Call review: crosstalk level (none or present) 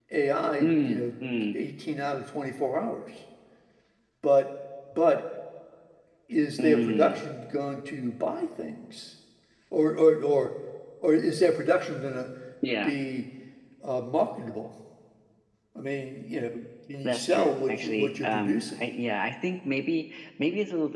present